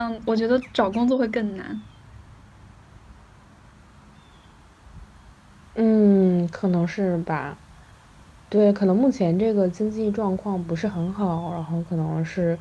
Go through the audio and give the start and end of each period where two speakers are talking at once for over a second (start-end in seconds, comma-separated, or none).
none